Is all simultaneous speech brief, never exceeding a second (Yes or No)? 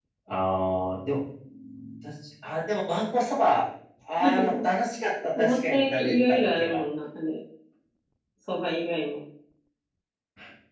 No